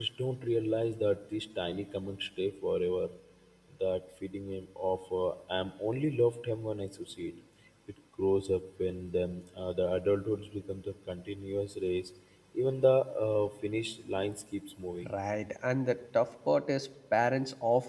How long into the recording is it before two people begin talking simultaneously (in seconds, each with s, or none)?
none